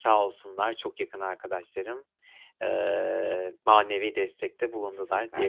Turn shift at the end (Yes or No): Yes